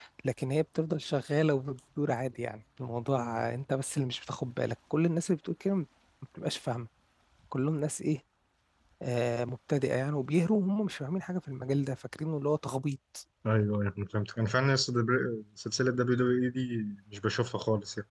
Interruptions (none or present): none